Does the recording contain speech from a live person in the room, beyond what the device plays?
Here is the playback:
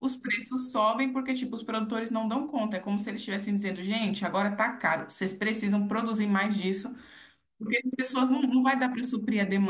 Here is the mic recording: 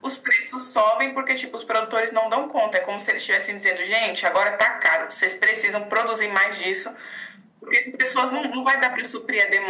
No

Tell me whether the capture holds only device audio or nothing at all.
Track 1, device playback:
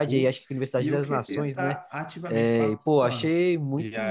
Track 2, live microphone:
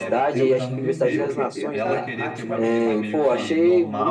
No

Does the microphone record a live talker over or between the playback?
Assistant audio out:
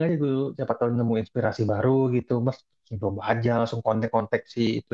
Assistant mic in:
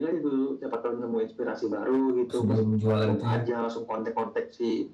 Yes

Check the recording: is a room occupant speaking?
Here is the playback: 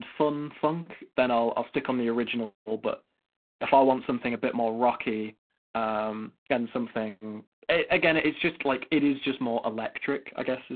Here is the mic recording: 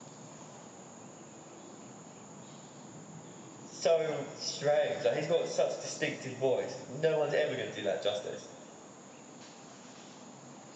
Yes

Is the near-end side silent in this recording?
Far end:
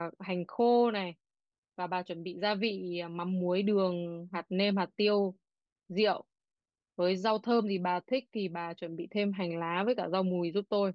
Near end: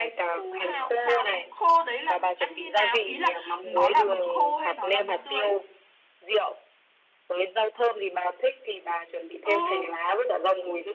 No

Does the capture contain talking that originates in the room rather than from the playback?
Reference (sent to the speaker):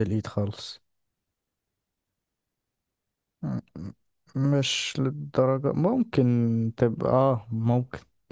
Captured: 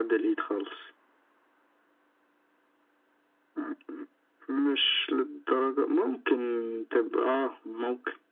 No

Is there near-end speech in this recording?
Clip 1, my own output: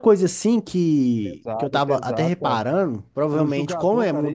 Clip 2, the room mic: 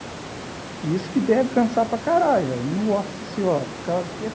Yes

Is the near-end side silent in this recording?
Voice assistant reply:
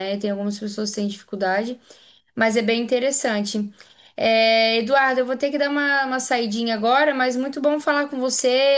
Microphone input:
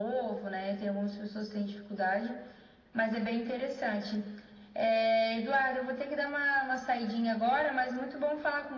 Yes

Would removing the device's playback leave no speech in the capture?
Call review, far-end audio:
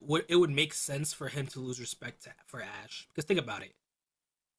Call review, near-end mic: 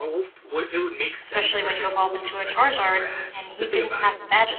No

